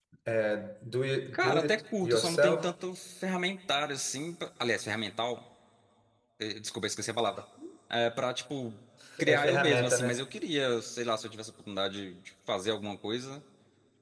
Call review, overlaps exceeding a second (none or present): present